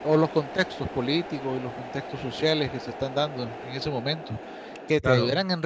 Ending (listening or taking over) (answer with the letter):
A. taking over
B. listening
B